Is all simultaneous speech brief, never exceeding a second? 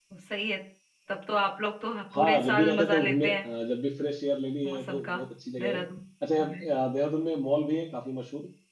No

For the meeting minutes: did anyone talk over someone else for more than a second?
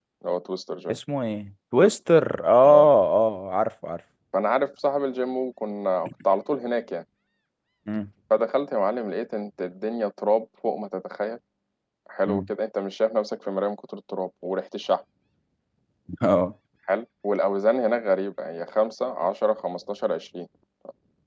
No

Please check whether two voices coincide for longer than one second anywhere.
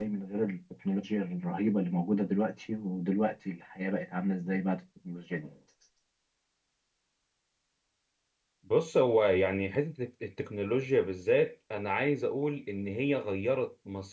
No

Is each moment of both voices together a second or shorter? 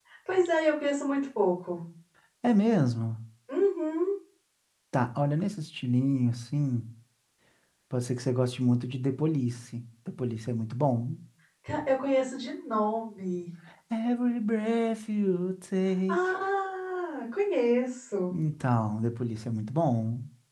Yes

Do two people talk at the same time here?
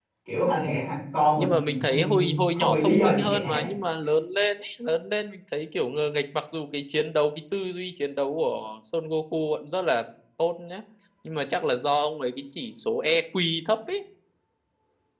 Yes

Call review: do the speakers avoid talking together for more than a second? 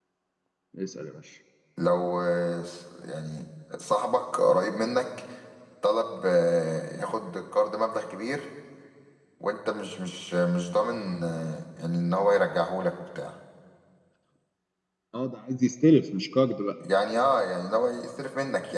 Yes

